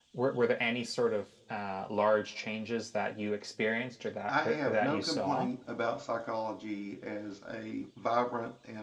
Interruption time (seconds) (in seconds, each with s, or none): 4.3 s